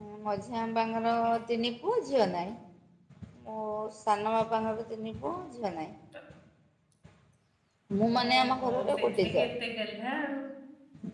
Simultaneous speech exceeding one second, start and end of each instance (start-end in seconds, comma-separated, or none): 8.2-9.4